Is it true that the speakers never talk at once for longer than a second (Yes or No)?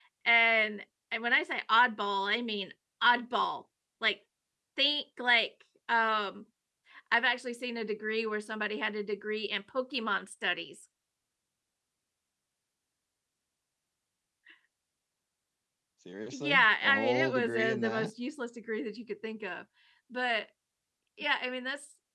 No